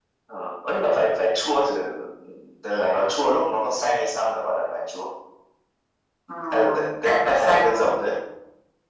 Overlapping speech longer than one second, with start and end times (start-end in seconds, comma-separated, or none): 6.5-7.9